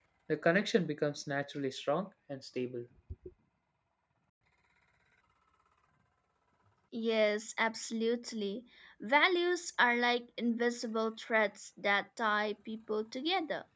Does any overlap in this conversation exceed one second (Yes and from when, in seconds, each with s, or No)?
No